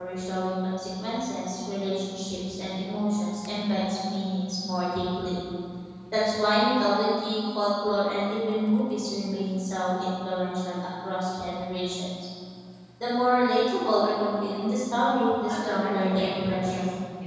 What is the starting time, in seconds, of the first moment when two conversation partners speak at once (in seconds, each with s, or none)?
15.5 s